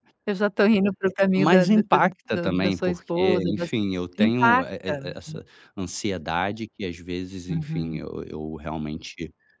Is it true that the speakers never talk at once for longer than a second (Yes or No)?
No